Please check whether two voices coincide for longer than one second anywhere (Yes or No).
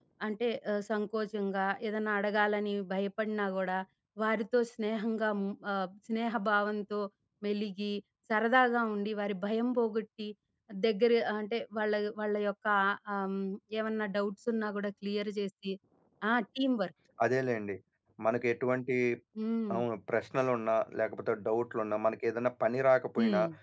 No